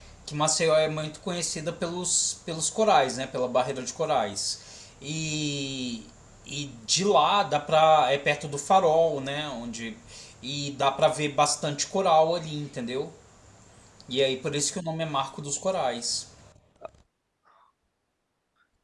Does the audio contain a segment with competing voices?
No

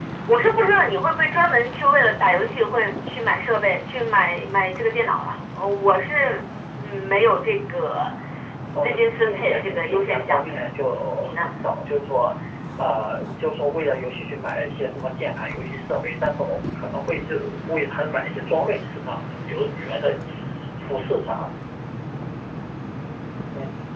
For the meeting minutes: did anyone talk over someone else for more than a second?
Yes, from 8.7 s

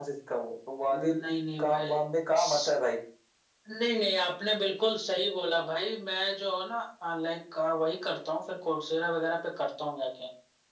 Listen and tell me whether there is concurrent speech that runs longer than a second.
No

